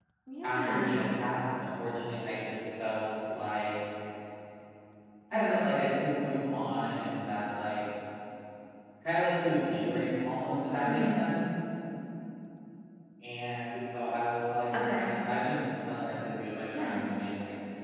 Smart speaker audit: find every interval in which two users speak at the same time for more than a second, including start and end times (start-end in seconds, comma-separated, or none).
none